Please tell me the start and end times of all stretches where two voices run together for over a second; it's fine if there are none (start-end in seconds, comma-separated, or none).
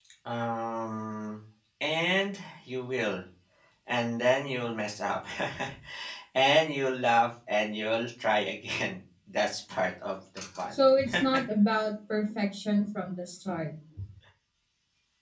none